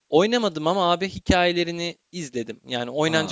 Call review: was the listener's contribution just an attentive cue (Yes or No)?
No